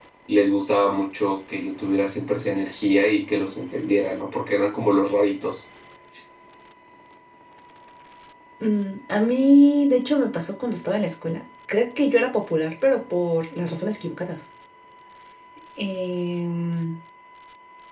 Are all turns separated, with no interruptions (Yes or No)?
Yes